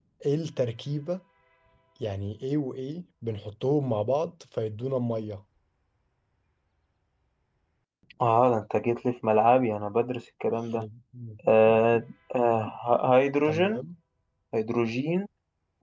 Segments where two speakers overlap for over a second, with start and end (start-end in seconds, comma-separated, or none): none